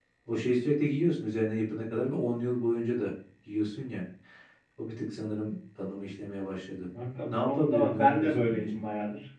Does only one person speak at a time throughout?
No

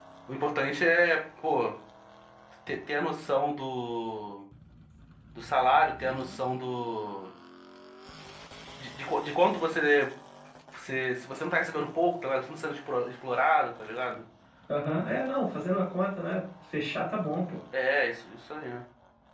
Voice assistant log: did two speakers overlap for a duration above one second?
No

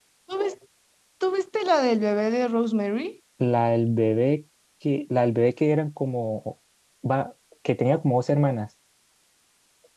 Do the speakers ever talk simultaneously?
No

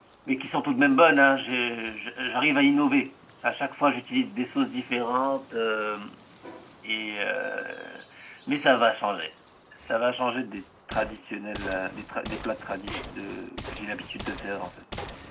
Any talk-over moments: No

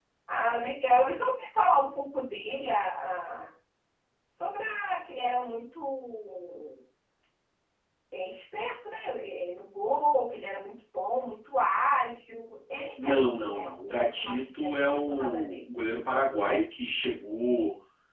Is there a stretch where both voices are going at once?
Yes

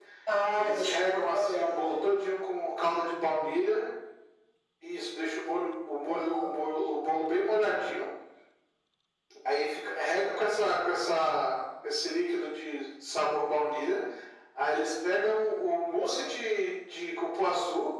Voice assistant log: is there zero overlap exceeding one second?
No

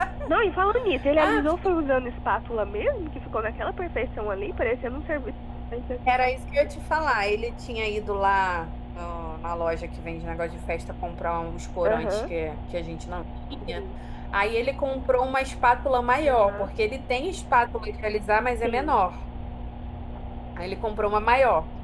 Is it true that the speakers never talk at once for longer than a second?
Yes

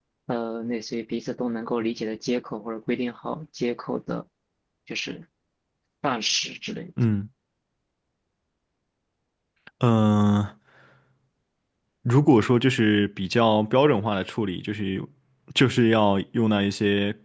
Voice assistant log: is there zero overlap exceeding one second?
Yes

